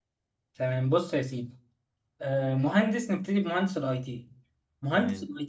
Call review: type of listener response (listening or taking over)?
listening